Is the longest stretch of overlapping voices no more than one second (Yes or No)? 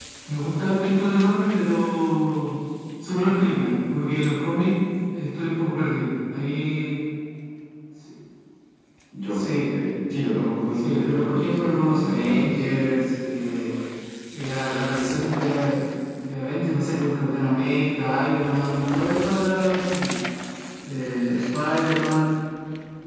No